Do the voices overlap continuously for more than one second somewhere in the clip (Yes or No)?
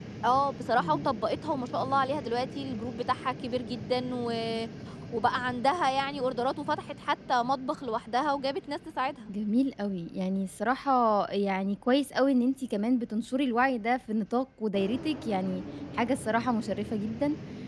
No